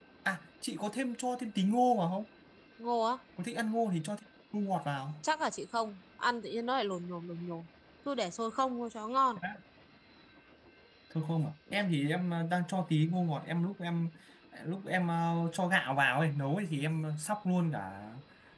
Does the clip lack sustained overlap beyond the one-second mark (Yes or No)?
Yes